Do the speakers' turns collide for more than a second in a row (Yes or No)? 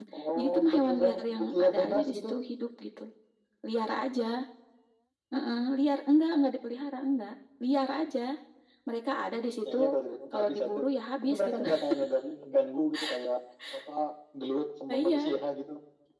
Yes